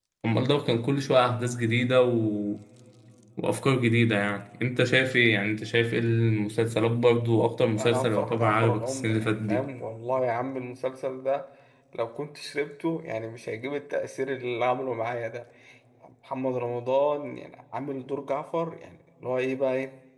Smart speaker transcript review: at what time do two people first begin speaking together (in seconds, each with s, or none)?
7.8 s